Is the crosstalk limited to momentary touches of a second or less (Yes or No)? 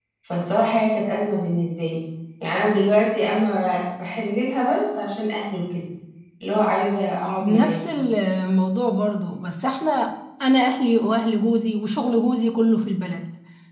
Yes